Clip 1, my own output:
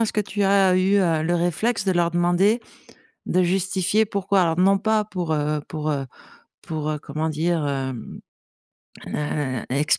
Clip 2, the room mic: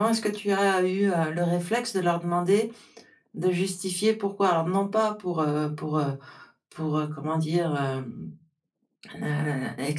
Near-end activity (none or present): none